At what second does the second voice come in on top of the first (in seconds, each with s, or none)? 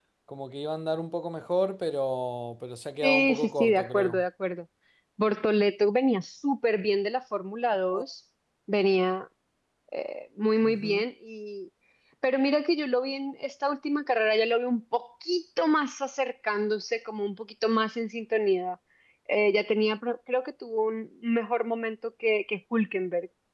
3.0 s